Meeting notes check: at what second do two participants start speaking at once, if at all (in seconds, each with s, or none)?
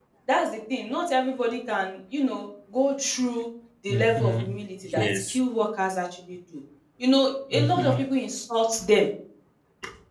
3.9 s